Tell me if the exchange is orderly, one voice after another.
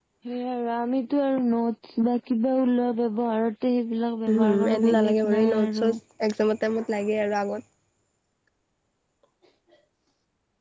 No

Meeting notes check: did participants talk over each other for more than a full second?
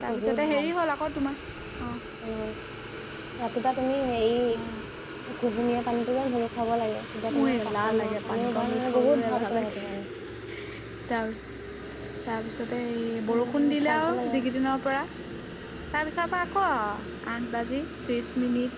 Yes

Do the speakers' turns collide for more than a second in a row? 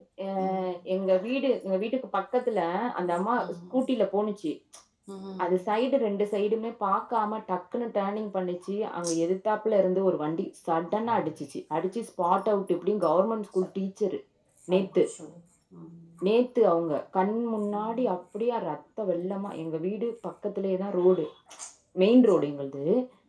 No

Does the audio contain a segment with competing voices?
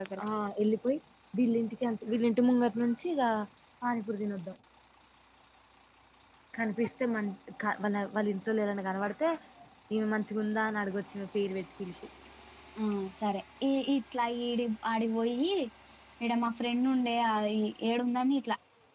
No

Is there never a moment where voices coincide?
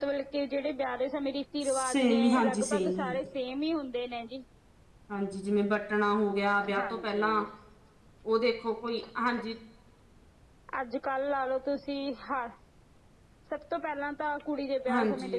No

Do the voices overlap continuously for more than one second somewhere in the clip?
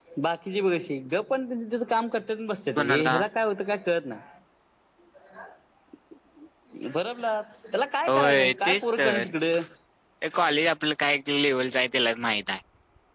Yes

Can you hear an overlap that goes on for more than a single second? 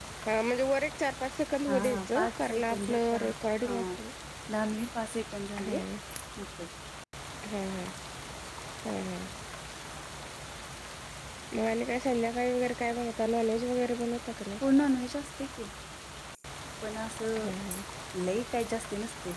Yes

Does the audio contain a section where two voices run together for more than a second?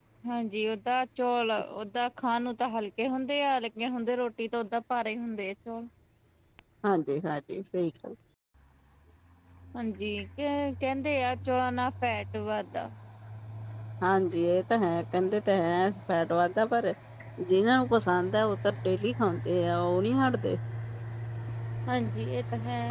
No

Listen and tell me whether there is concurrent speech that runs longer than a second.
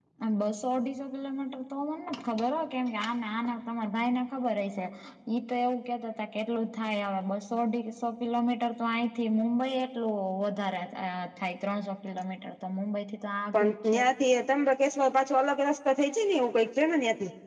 No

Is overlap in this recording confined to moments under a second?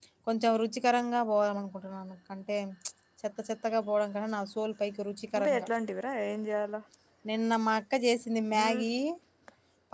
Yes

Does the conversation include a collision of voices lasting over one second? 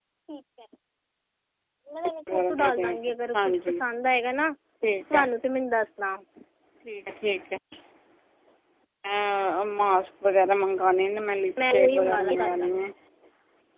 Yes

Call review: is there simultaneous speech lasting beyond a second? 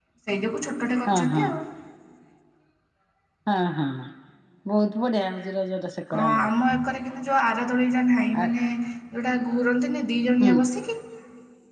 No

